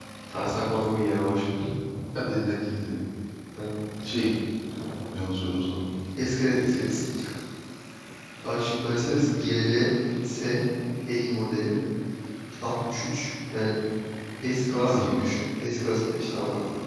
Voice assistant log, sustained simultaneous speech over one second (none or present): none